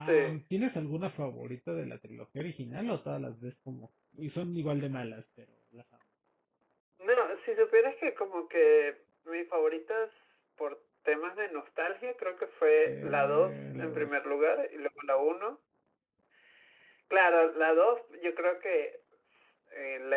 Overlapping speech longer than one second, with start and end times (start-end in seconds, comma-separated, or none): 12.9-14.2